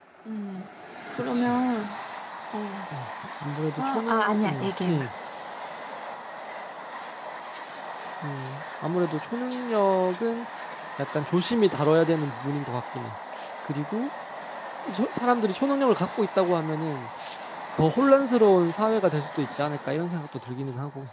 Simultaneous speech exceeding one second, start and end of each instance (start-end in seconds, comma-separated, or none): 3.8-5.0